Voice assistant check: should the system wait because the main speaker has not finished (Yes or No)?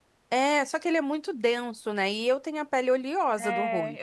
No